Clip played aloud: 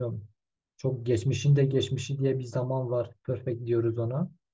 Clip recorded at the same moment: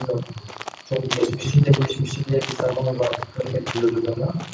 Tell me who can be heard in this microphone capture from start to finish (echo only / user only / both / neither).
echo only